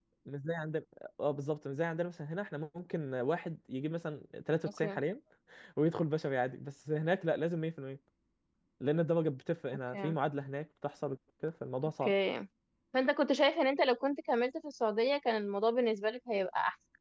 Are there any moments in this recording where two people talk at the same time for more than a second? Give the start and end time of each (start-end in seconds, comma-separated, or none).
none